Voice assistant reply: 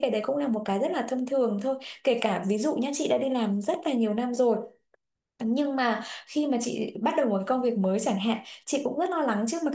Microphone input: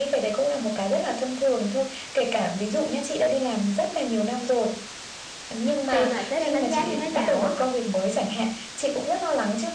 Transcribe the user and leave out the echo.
xem là sếp em đánh giá như thế nào á

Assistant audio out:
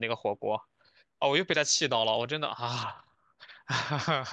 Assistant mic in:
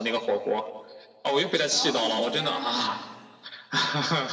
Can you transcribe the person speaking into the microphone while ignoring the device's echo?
哦，你在加拿大哪里？

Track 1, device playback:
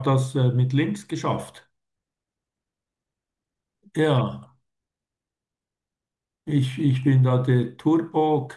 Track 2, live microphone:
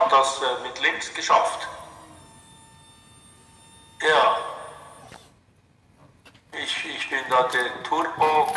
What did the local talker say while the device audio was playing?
none

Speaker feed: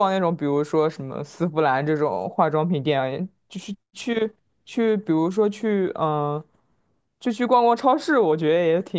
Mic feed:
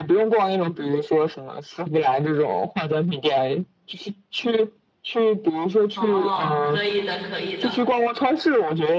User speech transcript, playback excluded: 哦，可以的，可以的。

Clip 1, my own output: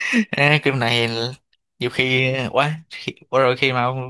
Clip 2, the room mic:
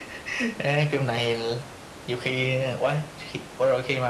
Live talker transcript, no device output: none

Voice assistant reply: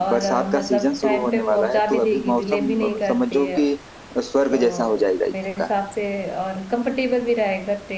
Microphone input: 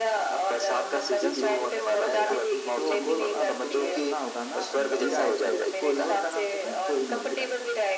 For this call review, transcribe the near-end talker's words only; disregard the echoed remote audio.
हाँ जी जी सुन, सुनो जरा तो गोल अब तुमने सुना होगा ना हीरा एक है कोहिनूर का नाम सुना है कोहिनूर हीरा

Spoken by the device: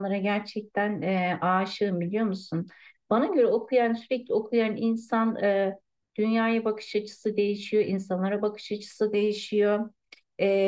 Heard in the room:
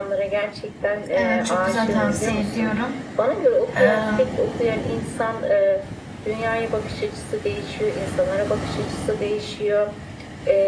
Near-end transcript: Evet çok güzel tavsiye ediyorum. Ee,

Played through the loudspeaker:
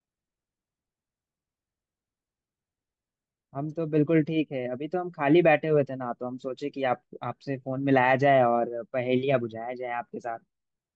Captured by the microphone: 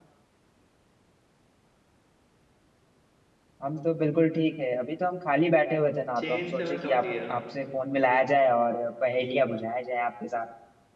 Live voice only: चेन से मैं समझ गया

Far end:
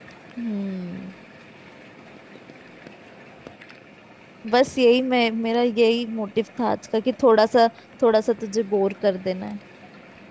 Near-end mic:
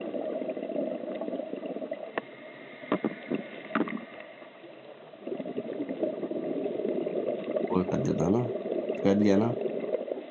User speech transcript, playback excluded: बोल कर देता ना कर लिया ना

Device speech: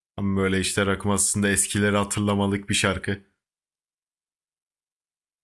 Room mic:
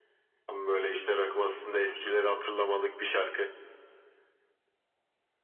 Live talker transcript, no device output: none

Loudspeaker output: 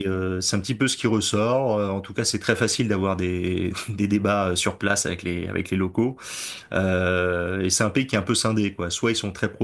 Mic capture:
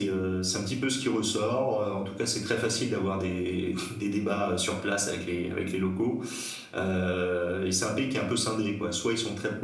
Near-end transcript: none

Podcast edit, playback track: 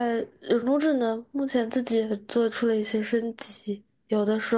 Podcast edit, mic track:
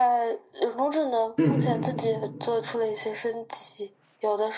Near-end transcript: 嗯

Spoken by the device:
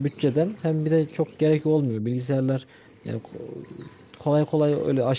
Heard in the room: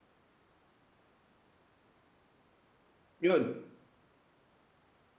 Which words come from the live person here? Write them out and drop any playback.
Yok

